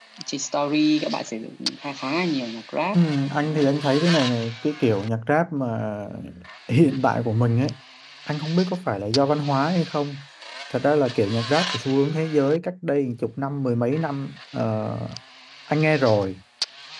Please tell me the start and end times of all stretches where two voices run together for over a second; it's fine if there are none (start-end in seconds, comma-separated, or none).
none